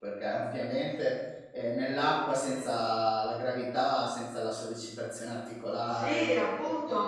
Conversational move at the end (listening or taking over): taking over